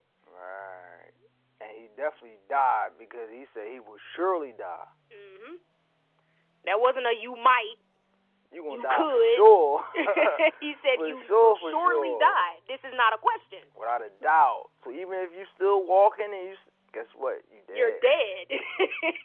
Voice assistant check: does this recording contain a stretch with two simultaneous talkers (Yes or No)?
Yes